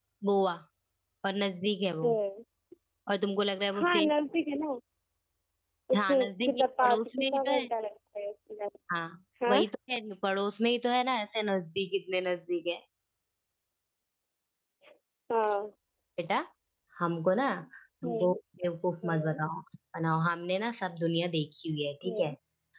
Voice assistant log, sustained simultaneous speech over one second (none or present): present